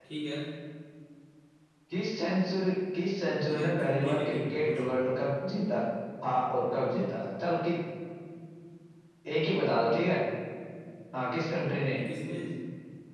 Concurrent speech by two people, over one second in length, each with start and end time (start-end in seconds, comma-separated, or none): 3.5-4.9